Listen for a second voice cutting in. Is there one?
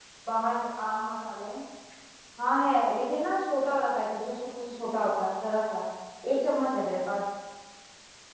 No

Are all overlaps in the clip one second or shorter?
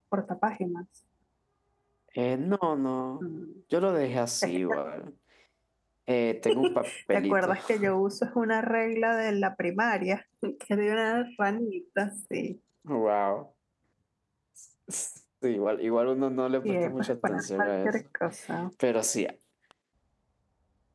No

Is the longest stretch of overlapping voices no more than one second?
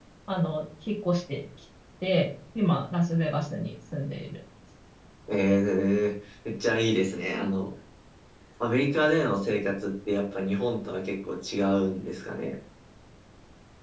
Yes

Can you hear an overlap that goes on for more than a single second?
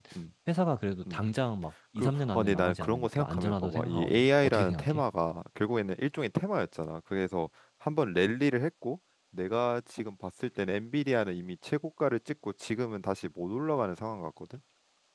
Yes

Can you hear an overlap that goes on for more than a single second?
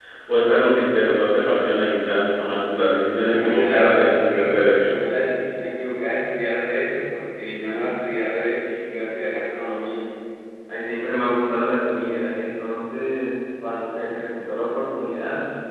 Yes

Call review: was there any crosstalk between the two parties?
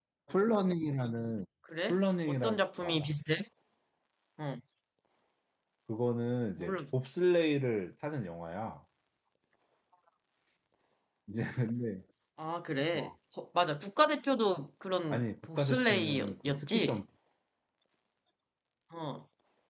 Yes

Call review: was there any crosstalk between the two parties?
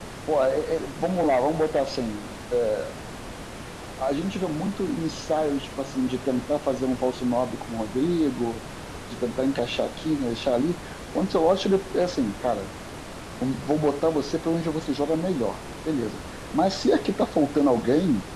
No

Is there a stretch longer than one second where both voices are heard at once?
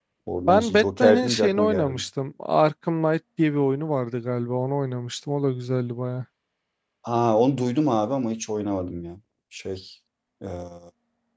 Yes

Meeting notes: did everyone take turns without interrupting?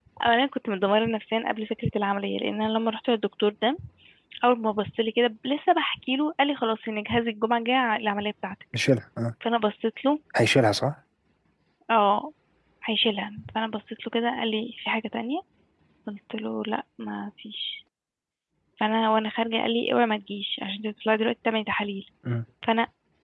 Yes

